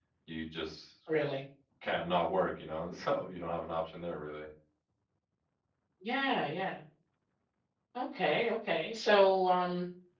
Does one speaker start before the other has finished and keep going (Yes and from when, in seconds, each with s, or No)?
No